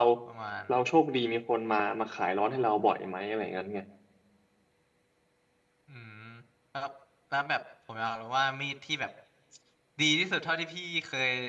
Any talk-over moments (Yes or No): No